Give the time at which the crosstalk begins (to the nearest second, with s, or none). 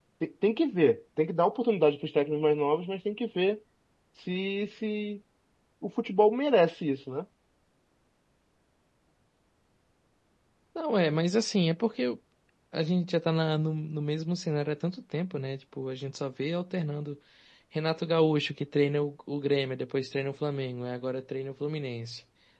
none